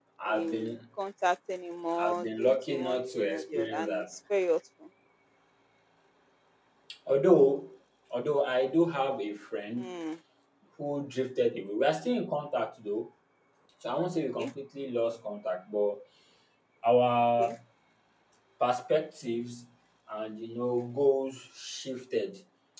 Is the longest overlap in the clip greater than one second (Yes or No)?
Yes